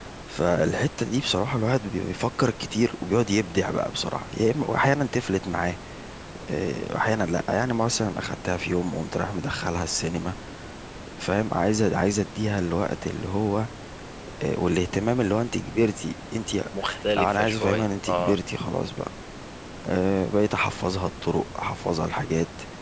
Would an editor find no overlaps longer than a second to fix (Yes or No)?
No